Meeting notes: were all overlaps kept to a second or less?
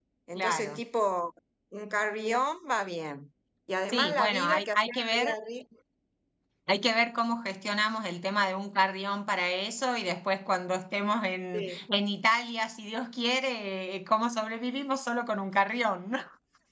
No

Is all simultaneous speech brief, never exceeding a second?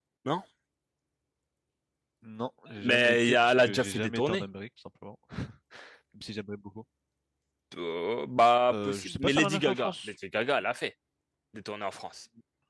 No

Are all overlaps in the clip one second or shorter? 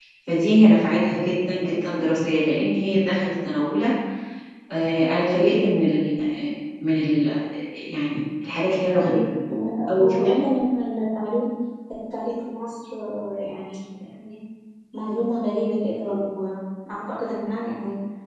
Yes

